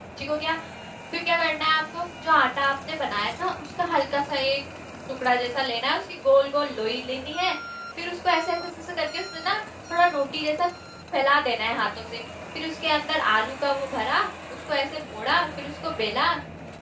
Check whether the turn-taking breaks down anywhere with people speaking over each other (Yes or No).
No